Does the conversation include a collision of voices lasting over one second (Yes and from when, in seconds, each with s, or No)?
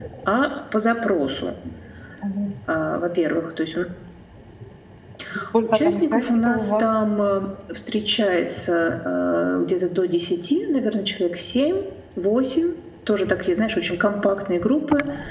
Yes, from 5.6 s